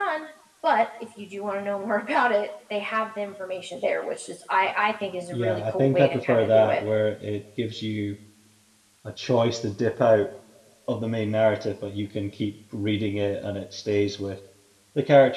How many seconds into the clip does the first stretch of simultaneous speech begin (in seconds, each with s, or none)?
5.3 s